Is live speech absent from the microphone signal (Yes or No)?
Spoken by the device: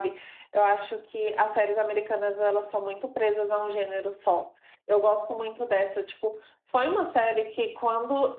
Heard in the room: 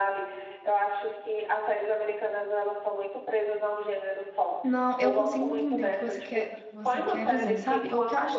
No